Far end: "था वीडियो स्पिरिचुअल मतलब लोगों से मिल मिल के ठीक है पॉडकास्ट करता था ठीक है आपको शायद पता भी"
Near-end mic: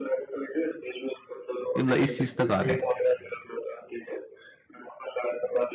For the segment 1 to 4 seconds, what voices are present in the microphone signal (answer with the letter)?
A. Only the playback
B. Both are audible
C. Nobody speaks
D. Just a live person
B